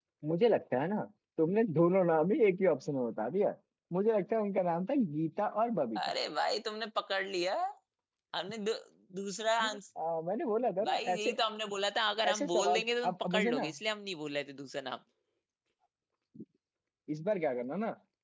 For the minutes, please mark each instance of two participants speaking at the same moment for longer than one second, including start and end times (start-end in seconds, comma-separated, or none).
12.3-13.7